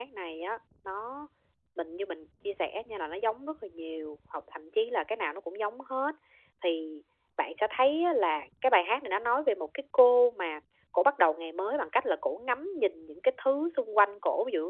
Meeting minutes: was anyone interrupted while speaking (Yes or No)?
No